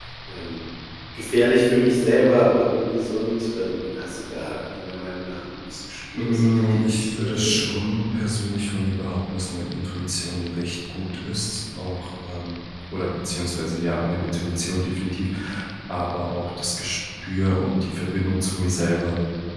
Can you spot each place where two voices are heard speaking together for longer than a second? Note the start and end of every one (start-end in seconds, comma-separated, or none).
6.2-7.6